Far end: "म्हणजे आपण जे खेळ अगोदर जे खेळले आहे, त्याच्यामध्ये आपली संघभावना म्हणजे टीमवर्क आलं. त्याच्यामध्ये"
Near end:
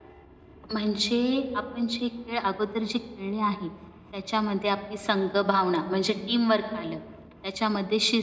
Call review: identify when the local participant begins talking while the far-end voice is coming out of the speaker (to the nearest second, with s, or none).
none